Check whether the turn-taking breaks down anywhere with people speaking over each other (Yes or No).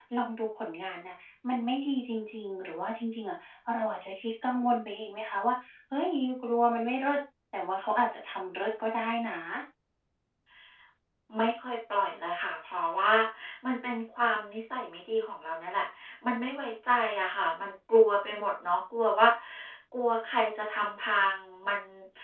No